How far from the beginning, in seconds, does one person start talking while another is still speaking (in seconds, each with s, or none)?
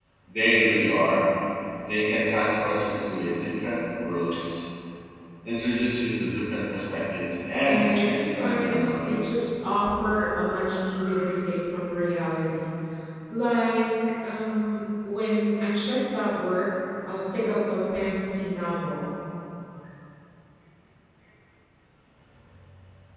7.6 s